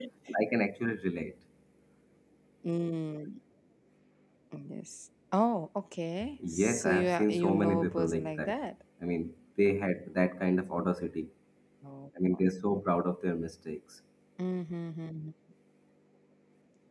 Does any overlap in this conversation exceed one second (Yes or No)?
Yes